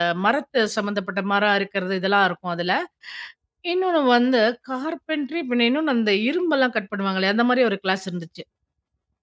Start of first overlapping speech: none

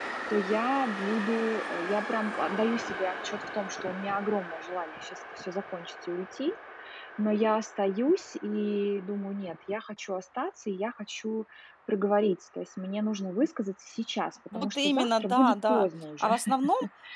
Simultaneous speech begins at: 14.5 s

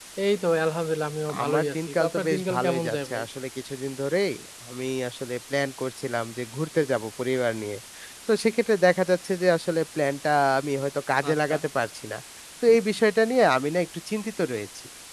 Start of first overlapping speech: 1.4 s

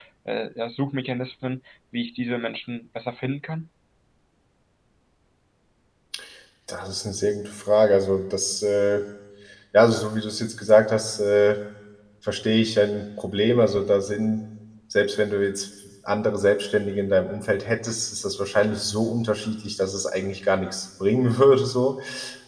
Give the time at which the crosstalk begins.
none

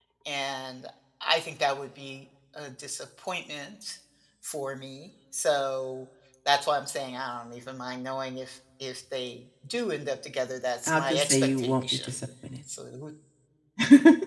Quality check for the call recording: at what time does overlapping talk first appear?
10.9 s

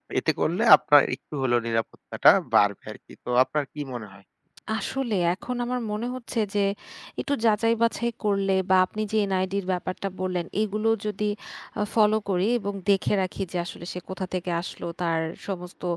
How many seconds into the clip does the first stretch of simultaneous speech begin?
none

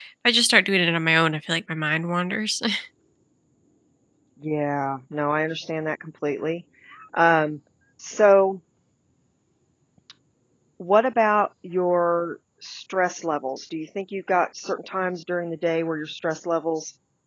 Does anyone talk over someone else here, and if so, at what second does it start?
none

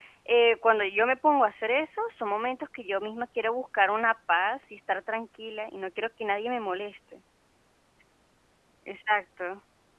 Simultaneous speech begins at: none

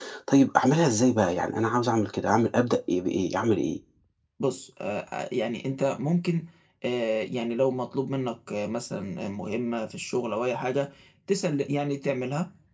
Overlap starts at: none

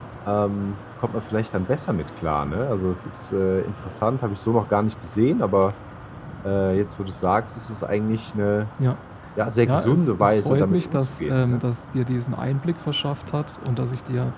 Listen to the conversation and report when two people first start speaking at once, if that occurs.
9.6 s

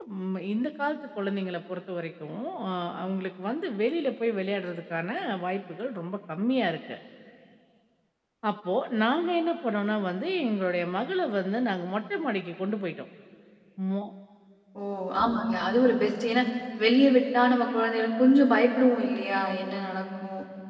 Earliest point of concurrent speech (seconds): none

